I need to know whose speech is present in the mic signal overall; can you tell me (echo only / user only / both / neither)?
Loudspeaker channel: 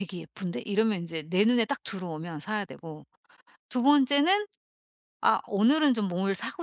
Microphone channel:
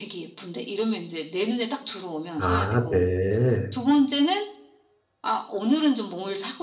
both